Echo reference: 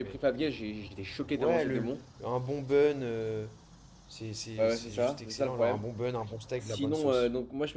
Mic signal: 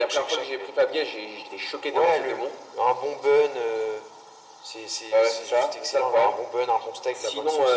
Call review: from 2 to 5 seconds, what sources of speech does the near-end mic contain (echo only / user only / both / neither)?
echo only